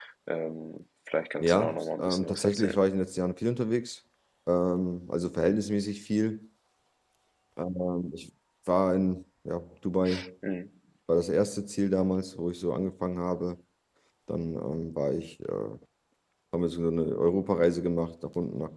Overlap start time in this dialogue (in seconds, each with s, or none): 1.4 s